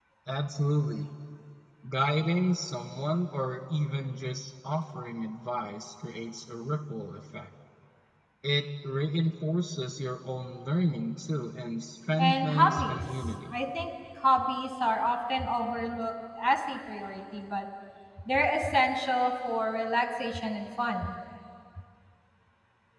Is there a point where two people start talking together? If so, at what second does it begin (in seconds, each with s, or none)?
12.2 s